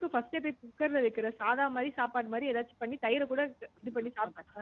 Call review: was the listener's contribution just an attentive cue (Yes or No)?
No